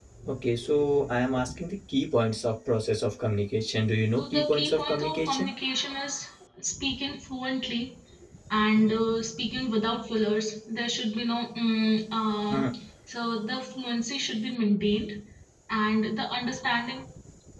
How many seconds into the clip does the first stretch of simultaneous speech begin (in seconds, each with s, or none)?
4.2 s